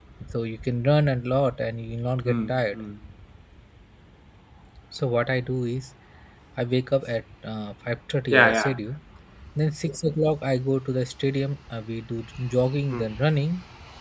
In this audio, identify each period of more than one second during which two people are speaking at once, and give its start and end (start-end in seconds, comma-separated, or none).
none